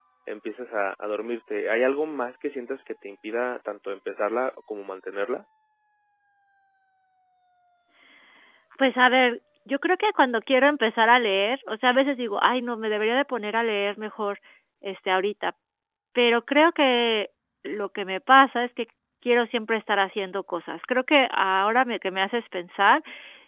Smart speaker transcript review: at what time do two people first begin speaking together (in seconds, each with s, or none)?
none